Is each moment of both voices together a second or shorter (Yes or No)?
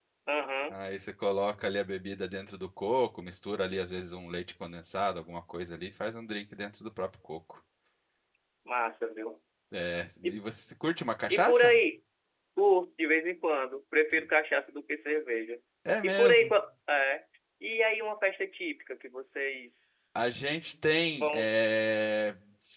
Yes